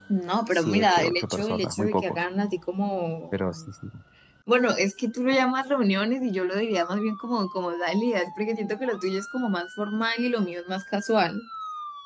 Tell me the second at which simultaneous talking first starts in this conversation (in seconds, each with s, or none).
0.5 s